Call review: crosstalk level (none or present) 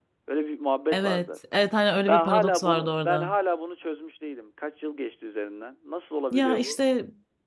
present